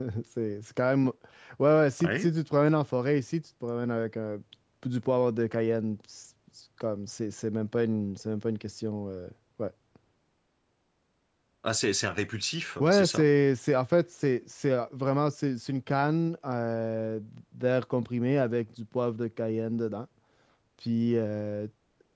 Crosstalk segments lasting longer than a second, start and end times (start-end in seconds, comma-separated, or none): none